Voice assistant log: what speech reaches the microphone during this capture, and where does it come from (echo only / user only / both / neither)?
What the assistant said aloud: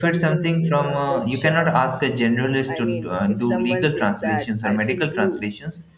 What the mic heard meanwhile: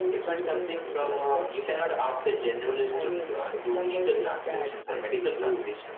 echo only